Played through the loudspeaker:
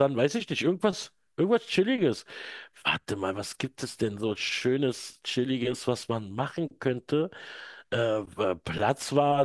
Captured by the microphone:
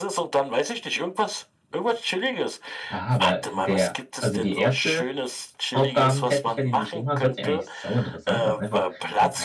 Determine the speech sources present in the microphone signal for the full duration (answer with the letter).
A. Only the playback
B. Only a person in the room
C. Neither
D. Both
D